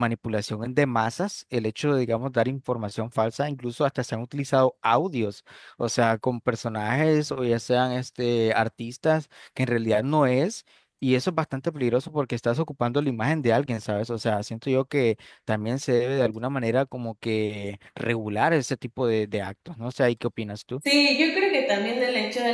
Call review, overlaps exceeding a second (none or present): none